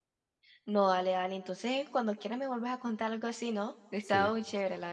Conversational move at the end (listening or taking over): taking over